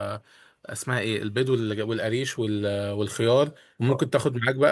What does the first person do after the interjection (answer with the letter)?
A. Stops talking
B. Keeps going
B